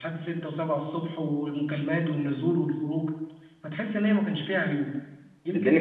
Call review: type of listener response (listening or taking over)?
taking over